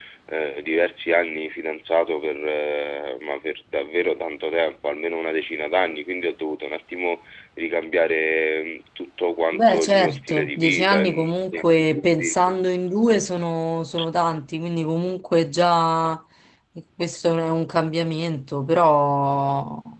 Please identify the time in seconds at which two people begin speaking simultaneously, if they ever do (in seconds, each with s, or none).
9.5 s